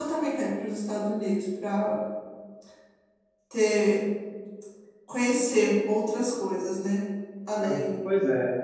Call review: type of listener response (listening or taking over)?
taking over